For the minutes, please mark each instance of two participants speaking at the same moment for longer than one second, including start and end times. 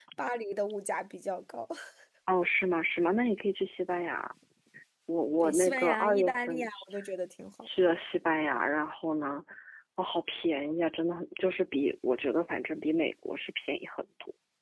5.4-6.8

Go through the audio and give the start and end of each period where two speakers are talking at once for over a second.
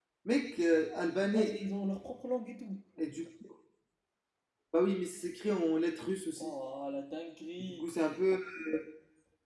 none

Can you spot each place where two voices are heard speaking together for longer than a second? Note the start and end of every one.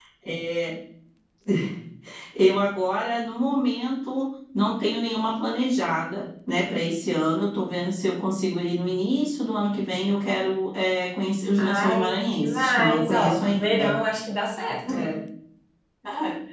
11.6-13.9

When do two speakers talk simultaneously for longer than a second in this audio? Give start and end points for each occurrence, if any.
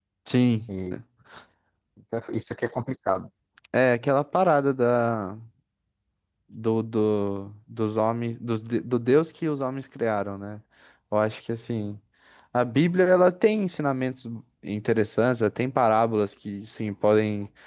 none

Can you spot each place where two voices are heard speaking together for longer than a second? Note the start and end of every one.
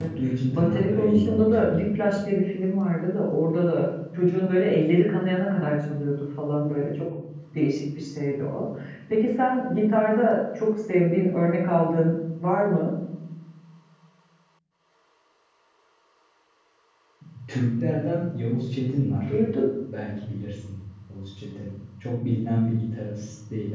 0.5-1.8

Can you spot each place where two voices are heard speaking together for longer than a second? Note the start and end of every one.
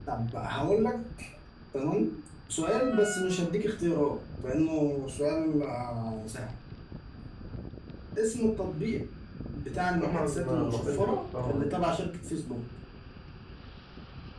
10.0-11.8

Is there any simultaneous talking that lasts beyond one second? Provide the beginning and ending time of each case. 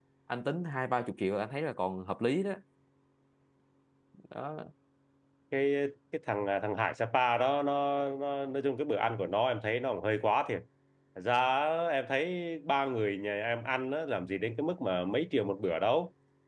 none

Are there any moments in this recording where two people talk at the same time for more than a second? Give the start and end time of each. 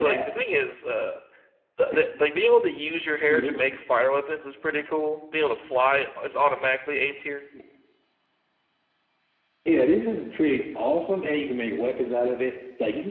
none

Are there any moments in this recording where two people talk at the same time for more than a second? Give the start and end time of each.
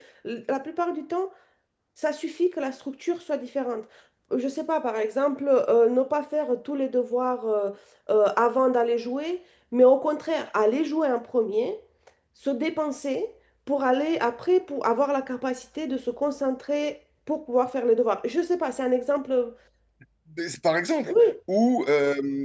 none

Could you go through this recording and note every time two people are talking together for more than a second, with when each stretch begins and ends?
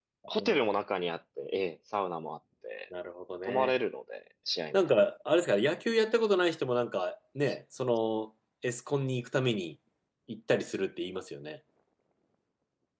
none

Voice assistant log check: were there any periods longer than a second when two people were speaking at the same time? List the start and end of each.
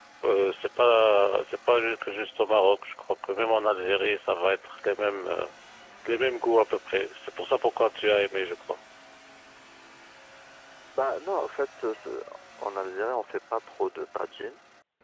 none

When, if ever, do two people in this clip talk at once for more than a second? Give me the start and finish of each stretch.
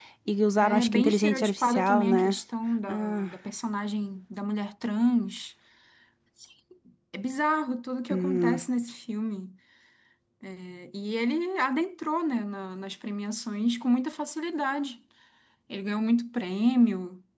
0.6-2.4

